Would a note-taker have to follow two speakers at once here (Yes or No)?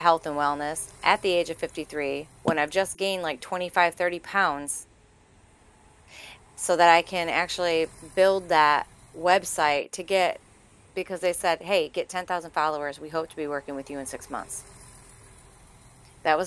No